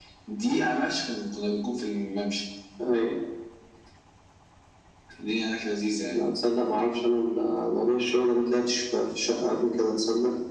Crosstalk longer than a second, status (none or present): none